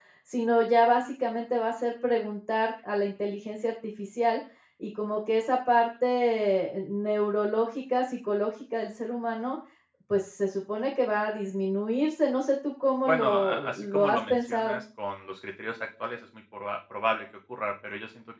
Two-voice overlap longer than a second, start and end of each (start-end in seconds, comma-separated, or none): 13.1-14.8